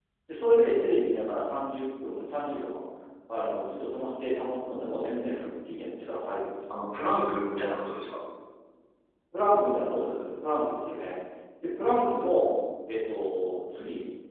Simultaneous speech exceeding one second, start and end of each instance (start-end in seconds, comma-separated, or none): none